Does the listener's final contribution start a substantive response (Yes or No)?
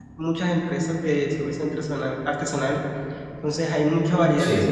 No